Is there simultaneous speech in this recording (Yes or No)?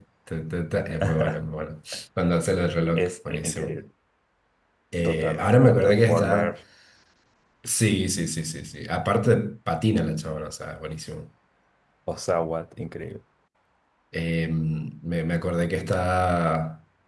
Yes